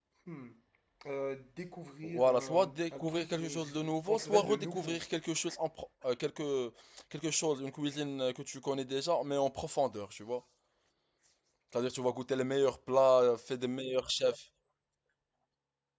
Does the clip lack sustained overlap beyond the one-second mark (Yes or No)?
No